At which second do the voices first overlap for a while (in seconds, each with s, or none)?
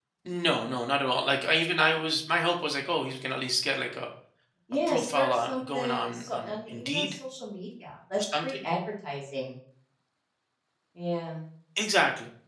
4.9 s